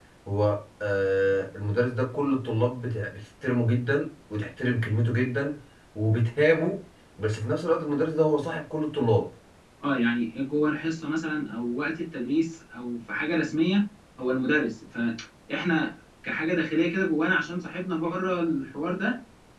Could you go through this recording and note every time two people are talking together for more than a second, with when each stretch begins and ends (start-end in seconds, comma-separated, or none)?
none